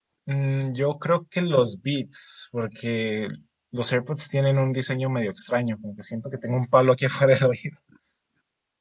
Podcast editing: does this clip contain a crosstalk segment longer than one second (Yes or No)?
No